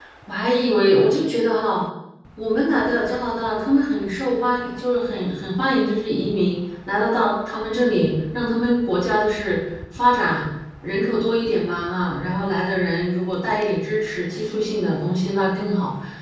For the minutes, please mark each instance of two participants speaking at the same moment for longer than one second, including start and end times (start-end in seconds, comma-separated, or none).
none